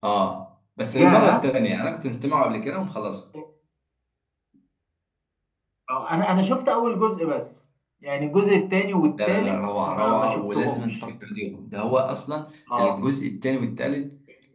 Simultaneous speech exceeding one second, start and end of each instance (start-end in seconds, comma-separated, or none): 9.3-11.0